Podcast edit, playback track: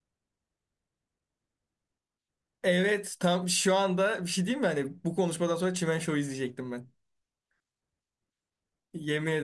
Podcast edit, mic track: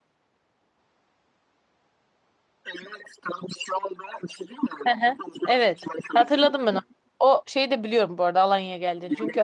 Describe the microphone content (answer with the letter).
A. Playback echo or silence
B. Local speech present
B